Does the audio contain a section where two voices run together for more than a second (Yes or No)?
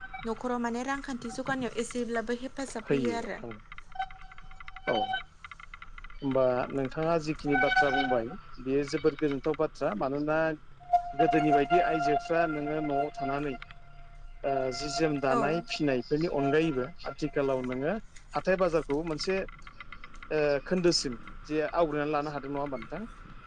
No